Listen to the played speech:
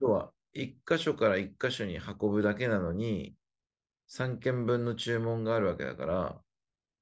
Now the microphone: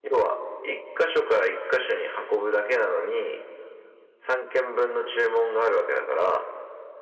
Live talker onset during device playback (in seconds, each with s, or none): none